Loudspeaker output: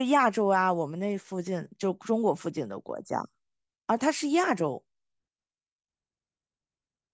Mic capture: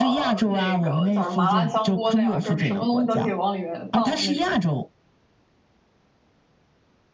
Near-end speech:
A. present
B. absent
A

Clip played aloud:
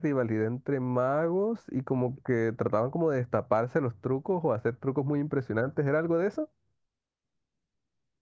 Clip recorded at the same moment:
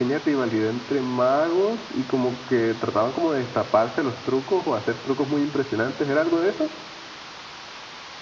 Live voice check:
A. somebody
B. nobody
B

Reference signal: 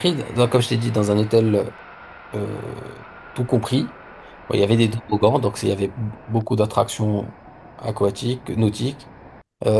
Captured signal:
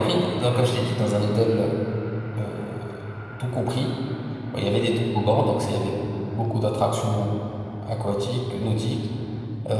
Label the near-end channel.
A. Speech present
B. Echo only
B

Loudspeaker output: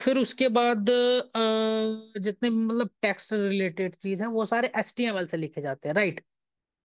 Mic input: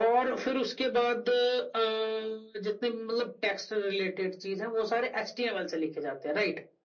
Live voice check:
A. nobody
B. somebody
A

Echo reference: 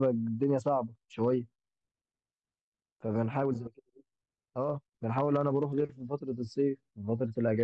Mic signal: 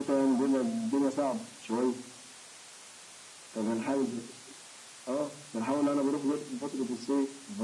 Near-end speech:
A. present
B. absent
B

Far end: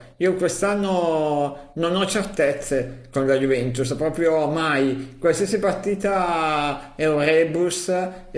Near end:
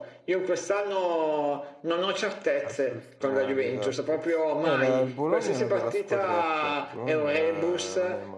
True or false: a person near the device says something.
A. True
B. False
A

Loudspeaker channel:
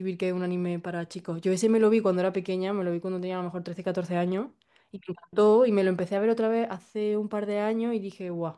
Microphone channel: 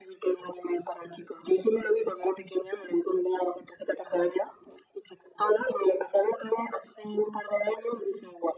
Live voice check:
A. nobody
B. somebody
A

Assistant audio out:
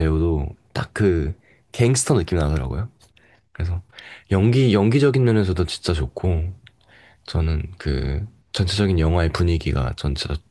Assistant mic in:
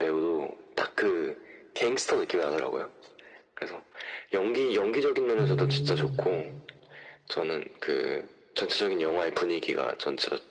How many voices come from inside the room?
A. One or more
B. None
A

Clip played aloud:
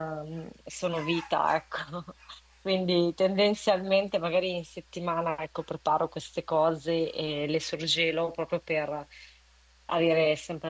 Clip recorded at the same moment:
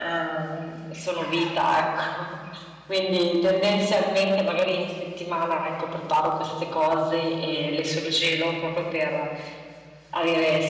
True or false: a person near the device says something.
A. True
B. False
B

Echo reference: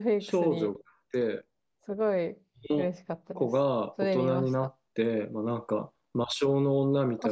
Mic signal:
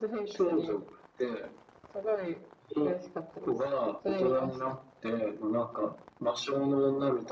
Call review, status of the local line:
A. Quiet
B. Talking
A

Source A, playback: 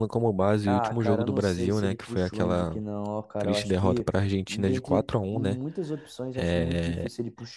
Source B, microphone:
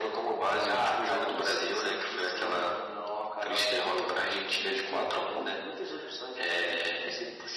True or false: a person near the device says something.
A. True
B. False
B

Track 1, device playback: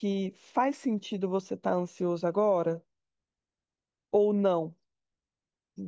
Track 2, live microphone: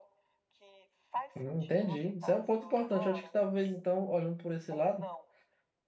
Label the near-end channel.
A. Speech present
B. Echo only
A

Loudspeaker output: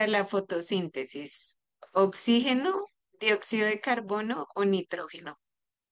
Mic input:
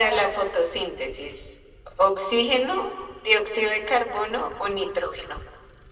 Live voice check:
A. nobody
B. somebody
A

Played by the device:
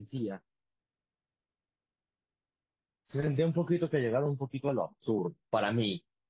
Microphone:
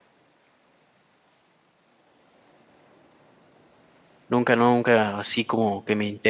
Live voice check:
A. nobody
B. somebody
B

